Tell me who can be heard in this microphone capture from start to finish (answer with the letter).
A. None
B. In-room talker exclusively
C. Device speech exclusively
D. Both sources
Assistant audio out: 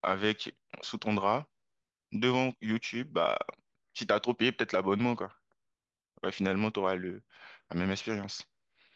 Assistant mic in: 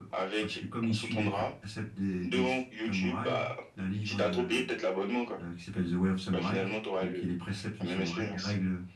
D